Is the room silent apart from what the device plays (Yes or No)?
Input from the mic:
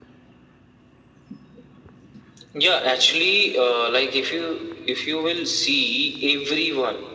Yes